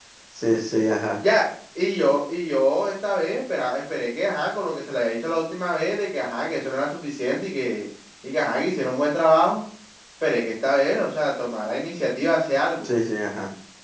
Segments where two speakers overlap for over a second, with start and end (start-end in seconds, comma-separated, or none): none